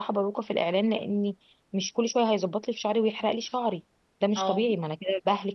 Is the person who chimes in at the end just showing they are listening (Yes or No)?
Yes